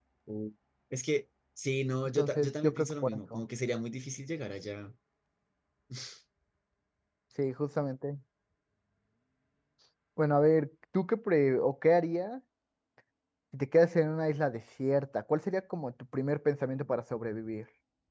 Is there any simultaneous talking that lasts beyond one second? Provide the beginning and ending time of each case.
2.2-3.4

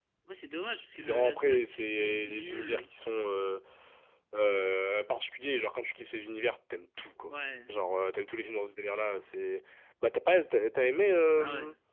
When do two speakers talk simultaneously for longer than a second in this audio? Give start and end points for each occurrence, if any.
0.9-2.9

